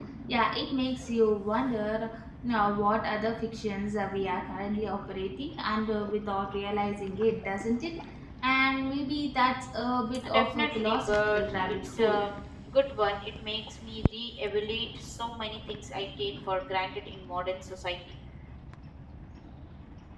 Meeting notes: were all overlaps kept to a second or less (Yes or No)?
No